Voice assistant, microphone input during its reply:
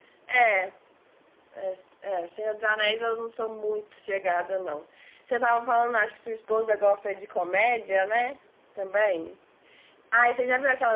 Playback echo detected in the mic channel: No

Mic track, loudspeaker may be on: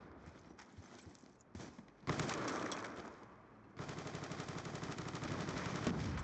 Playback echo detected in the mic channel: No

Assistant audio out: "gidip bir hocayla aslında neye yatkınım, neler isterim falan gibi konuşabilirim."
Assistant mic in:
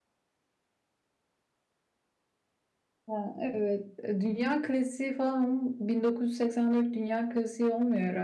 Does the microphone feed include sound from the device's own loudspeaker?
No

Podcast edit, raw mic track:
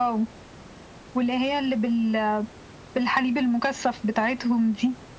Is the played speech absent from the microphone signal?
No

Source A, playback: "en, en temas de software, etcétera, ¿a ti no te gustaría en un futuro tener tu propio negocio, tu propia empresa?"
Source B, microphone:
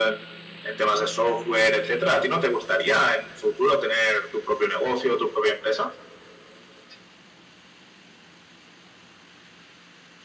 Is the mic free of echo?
No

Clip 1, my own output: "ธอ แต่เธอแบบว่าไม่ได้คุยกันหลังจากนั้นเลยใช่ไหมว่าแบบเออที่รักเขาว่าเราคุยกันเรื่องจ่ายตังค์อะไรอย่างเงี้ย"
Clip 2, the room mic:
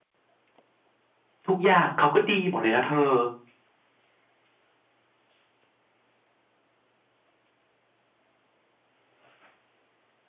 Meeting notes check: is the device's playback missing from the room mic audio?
Yes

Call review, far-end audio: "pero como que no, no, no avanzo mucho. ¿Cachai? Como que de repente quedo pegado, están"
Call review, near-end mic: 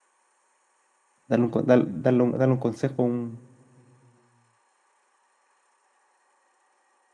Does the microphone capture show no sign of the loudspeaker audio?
Yes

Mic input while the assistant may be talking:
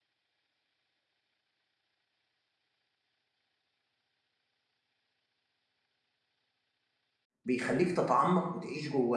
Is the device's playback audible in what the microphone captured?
No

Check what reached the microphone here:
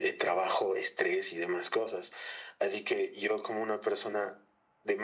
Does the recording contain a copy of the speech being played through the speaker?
Yes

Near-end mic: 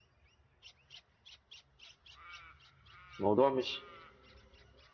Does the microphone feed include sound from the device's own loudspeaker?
No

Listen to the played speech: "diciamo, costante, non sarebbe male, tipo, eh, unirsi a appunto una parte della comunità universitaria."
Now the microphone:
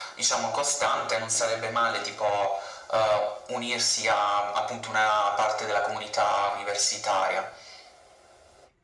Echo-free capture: No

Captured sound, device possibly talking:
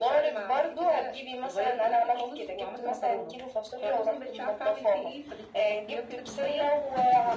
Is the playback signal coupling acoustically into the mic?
Yes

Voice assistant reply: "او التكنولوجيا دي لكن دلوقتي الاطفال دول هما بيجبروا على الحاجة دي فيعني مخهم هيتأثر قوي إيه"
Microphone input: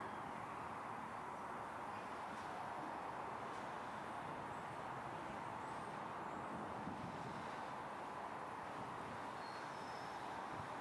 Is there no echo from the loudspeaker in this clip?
Yes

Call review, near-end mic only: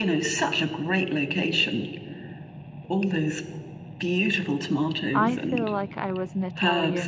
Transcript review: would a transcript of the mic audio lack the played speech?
No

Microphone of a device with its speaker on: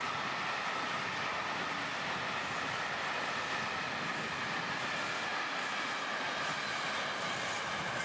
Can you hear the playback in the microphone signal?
No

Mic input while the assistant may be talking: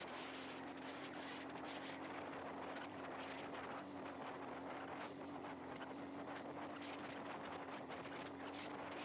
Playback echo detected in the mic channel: No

